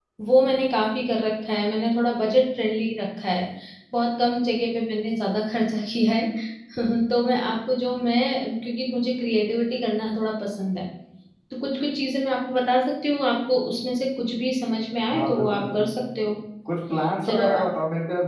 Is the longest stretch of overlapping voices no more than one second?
No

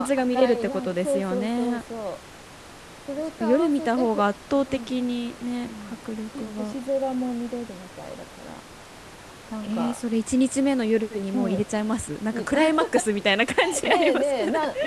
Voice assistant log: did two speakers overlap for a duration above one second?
Yes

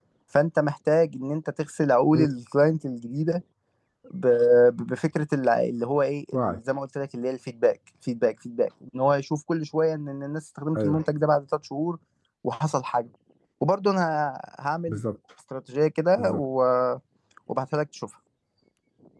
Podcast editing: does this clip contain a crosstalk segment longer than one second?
No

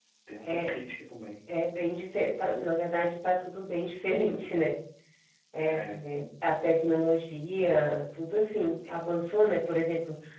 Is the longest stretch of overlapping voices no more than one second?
Yes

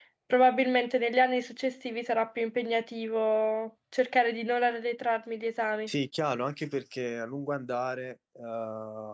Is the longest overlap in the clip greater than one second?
No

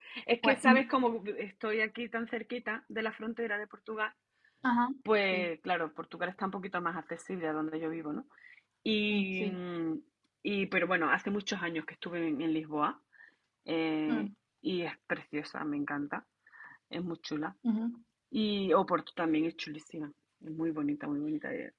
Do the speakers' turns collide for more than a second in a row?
No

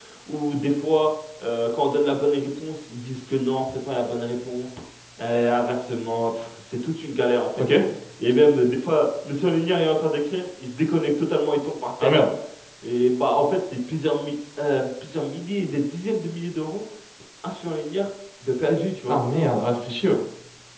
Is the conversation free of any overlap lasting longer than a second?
Yes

